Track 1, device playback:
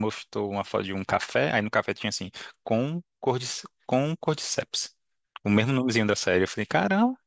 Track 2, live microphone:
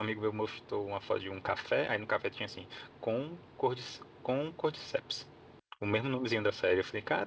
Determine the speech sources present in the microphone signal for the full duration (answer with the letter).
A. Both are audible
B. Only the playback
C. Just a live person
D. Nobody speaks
B